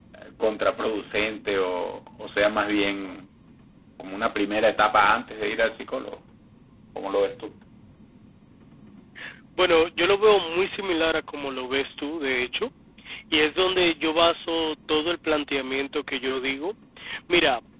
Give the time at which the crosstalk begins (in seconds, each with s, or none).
none